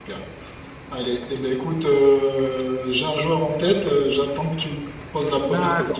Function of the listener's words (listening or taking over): taking over